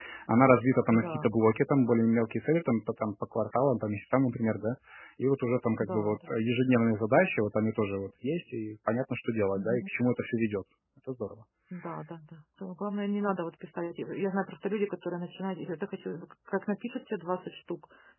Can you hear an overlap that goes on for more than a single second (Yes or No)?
No